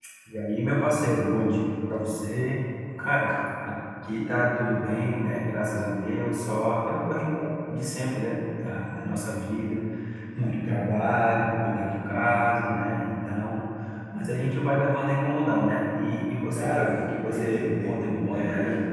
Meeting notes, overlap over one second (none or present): present